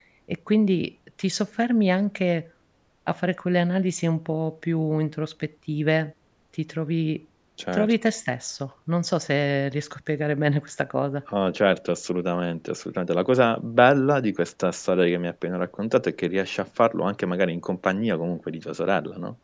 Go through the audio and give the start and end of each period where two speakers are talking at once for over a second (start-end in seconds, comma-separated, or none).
none